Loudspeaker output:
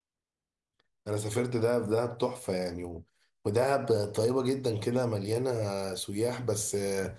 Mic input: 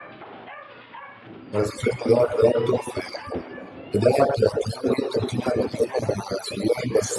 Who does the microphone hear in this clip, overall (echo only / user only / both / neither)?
echo only